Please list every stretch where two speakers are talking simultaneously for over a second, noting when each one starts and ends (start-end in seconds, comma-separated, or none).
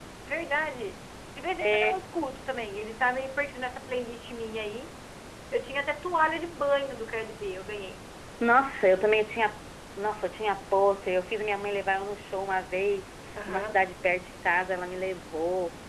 none